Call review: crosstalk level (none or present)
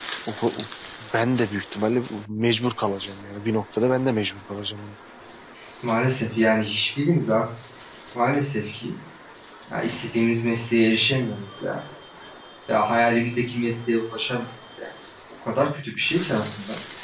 none